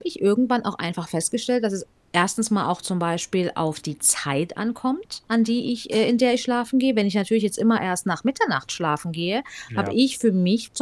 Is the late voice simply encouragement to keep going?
Yes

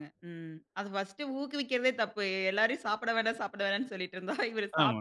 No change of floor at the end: No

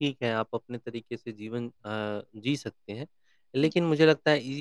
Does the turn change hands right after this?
No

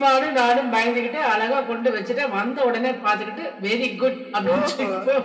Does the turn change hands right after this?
Yes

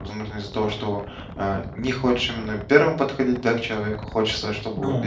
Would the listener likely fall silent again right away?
Yes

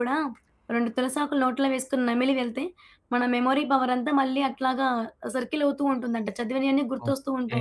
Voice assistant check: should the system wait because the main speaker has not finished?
No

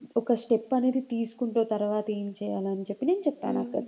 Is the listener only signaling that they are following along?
No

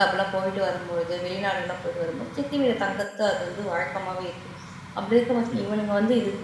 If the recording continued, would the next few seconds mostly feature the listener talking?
No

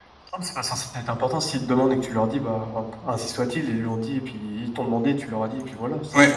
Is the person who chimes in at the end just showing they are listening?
No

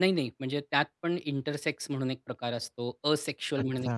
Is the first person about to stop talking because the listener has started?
No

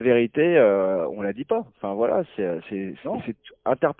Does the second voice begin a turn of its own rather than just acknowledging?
No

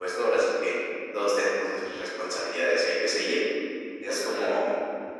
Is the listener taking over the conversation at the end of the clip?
No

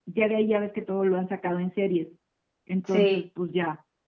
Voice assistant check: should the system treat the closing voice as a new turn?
No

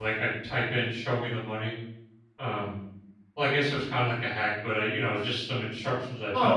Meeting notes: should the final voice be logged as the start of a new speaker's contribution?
Yes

